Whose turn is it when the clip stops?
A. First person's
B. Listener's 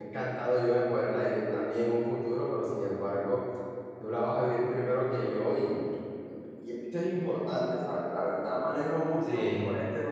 A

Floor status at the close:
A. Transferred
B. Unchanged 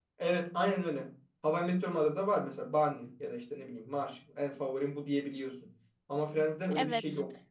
A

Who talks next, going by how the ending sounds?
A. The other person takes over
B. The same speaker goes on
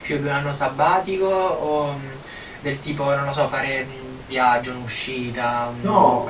A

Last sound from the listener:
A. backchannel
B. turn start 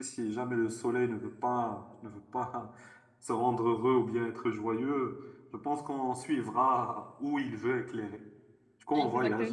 A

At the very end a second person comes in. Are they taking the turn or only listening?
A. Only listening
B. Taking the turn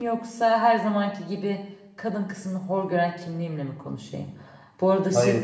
A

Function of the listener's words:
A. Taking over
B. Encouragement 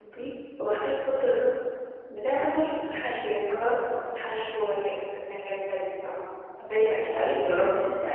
A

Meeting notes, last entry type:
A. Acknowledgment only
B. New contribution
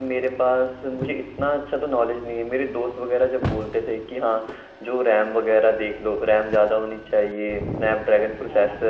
A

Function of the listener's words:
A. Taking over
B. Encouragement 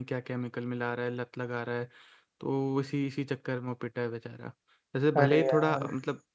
B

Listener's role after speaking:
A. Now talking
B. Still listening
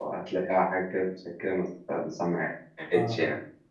A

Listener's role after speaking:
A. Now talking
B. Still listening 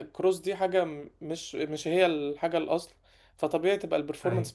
B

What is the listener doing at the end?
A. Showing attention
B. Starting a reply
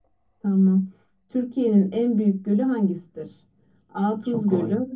A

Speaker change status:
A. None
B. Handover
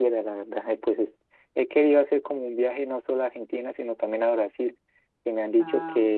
A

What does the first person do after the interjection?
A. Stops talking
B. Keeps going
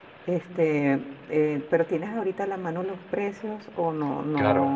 A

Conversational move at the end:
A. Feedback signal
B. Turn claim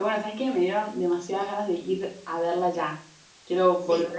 B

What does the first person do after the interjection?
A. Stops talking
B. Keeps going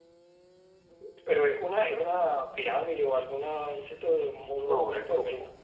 A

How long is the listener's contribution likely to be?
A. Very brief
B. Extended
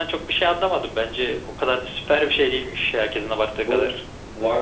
B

